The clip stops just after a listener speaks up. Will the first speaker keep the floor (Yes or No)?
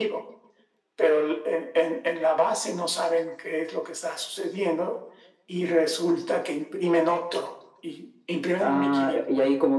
No